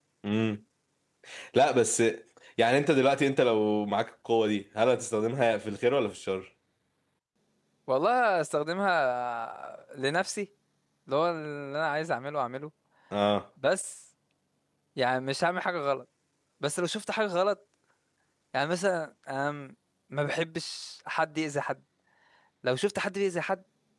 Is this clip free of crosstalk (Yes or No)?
Yes